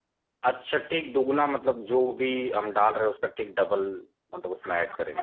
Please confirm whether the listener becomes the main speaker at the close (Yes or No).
Yes